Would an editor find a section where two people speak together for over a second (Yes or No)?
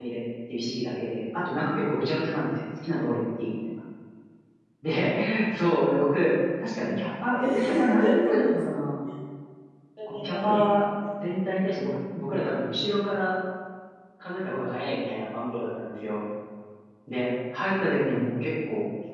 Yes